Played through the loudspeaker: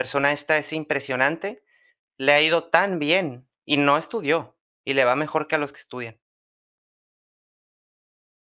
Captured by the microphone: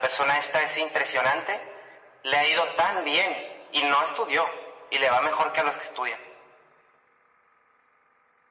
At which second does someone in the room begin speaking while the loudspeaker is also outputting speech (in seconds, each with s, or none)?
none